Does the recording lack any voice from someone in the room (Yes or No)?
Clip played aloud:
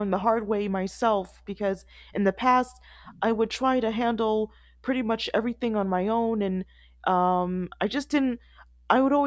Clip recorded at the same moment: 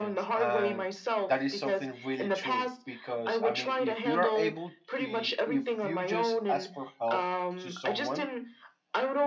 No